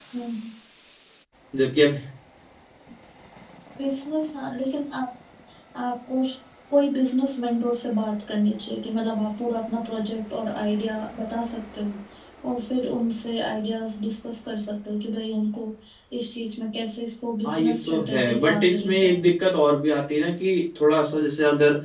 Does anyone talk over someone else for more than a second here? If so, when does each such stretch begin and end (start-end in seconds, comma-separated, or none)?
17.4-19.2